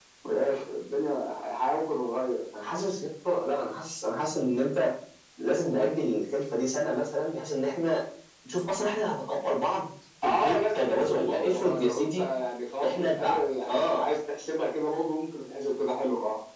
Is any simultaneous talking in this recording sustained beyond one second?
Yes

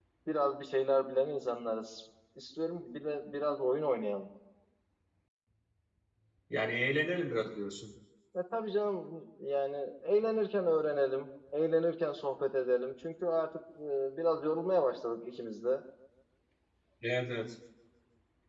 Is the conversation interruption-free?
Yes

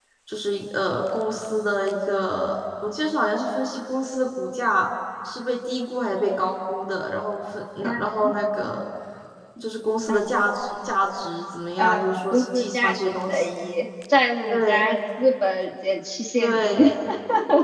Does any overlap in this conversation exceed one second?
Yes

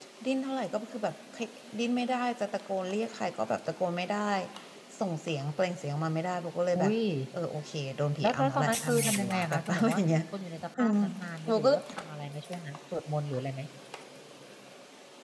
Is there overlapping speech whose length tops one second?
Yes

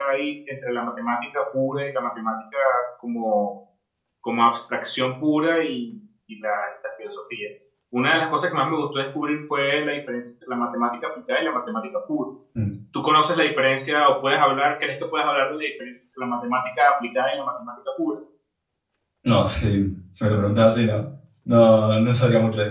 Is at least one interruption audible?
No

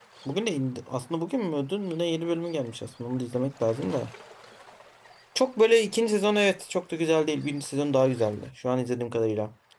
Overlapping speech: No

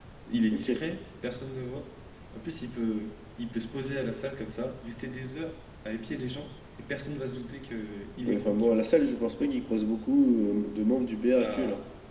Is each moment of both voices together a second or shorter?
Yes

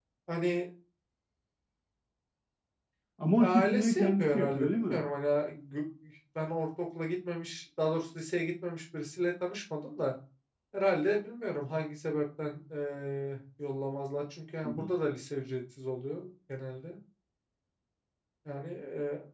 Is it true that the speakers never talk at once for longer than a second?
No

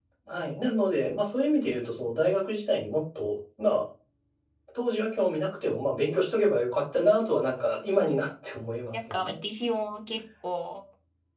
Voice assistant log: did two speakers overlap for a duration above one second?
No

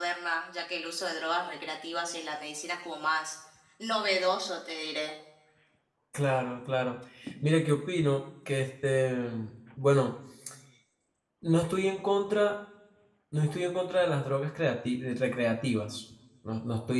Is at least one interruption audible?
No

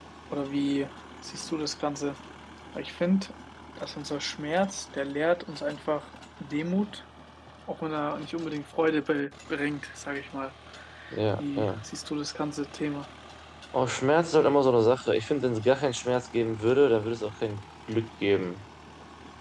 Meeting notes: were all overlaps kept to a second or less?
Yes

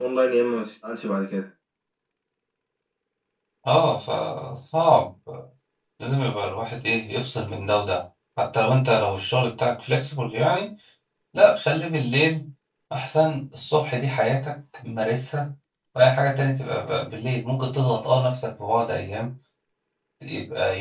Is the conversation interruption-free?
Yes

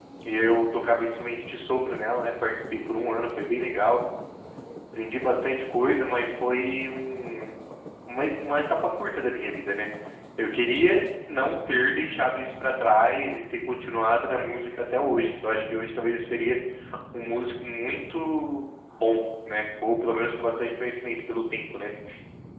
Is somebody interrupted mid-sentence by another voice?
No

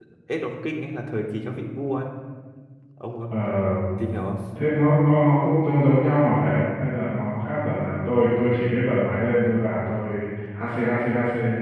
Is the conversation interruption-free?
Yes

